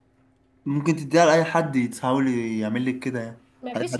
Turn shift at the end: Yes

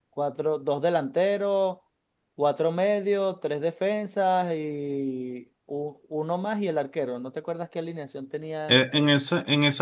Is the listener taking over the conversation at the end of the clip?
Yes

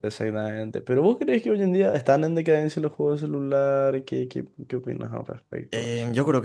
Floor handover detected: Yes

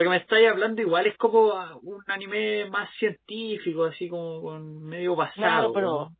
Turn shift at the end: Yes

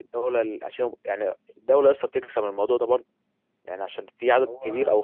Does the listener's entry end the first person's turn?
No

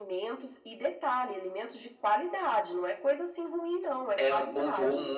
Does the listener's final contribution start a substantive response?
Yes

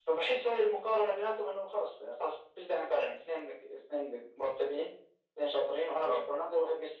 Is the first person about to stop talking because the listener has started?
No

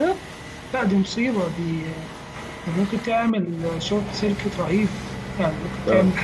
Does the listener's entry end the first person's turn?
Yes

